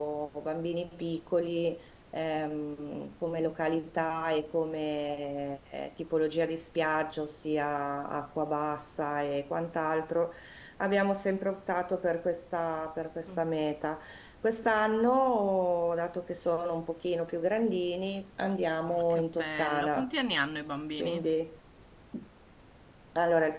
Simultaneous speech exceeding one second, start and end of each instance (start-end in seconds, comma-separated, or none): 18.9-20.1